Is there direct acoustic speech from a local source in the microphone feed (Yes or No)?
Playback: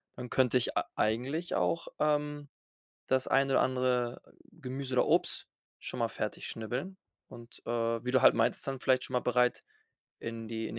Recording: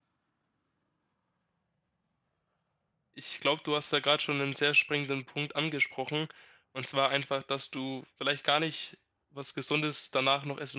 Yes